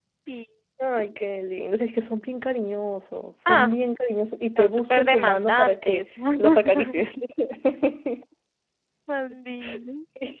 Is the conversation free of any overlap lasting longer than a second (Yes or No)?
No